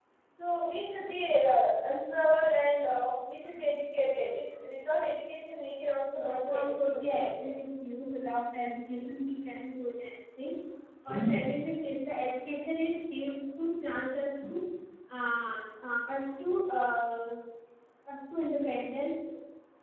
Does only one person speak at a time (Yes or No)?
No